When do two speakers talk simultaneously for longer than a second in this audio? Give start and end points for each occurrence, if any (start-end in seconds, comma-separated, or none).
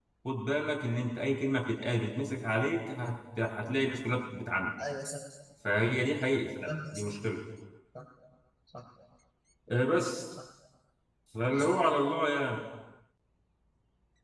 none